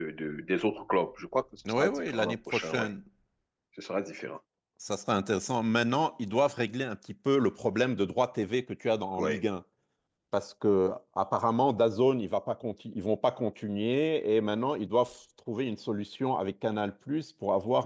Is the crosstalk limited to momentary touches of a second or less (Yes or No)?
No